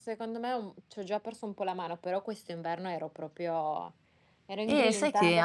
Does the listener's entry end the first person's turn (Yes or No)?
Yes